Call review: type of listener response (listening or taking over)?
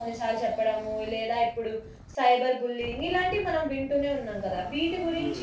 listening